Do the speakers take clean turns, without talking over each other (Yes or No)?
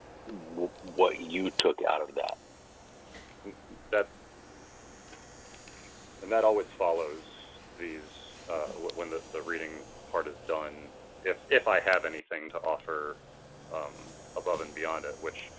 Yes